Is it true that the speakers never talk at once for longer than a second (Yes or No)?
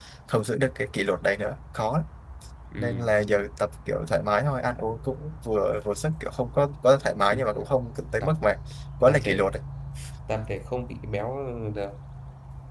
Yes